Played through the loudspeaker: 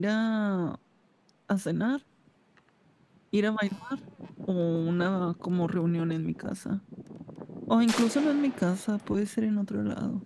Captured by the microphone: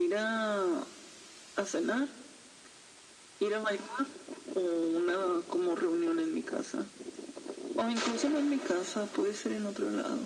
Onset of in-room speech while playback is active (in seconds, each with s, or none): none